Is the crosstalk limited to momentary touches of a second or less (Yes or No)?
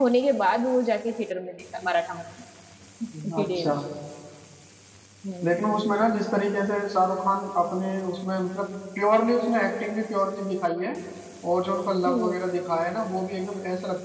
Yes